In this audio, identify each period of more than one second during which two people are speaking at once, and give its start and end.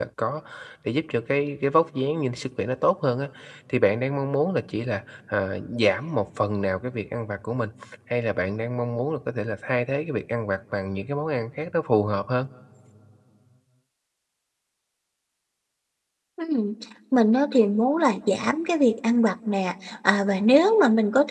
none

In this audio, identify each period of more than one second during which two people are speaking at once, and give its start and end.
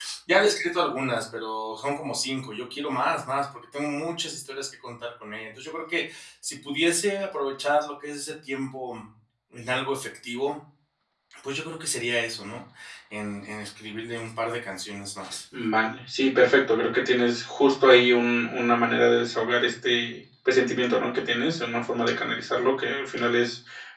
none

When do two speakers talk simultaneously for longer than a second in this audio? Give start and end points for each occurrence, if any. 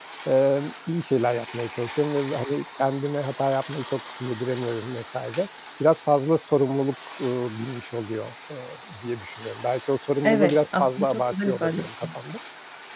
10.2-12.1

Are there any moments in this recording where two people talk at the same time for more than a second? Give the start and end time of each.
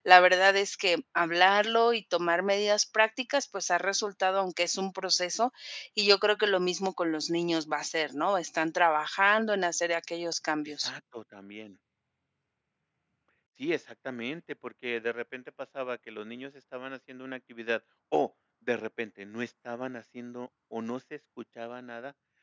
none

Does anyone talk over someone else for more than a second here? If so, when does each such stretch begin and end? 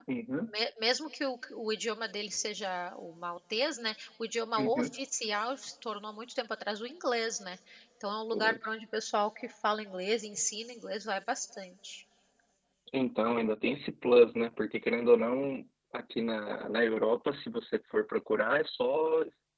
none

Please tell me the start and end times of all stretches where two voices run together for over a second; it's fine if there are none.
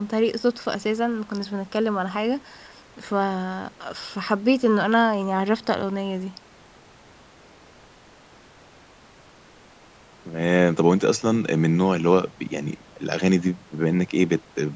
none

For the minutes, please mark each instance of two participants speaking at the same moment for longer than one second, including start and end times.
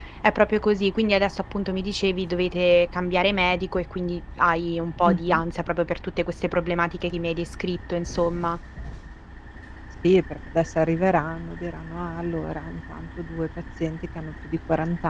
none

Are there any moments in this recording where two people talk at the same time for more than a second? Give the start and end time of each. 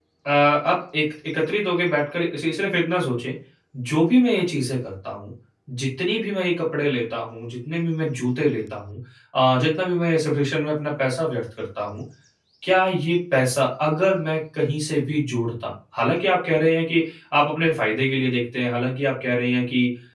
none

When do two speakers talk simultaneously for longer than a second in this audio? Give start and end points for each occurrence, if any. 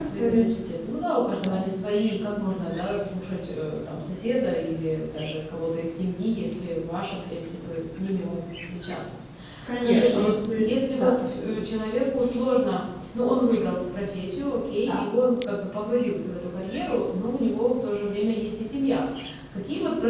9.8-11.1

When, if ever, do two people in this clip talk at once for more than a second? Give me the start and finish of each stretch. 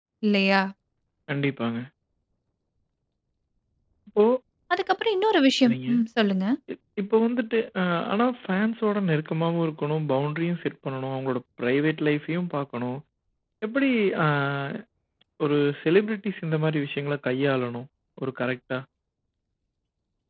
none

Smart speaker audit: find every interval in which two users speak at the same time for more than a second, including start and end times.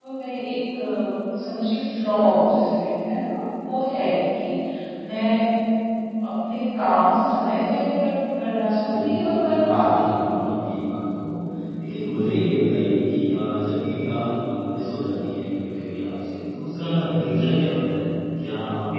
9.0-10.3

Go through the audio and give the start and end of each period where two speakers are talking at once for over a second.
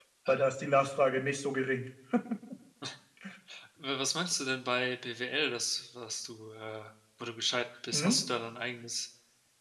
none

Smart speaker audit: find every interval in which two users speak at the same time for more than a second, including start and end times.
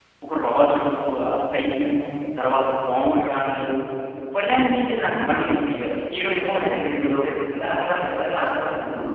none

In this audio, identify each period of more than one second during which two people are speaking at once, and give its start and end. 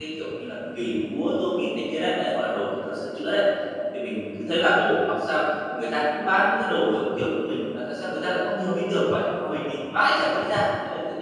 none

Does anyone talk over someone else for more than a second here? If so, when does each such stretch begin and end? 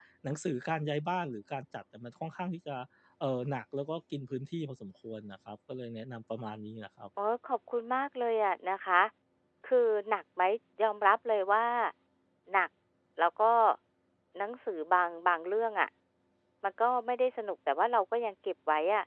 none

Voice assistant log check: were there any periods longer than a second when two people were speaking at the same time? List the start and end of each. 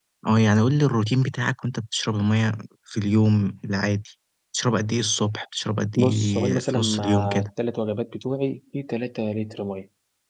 6.0-7.5

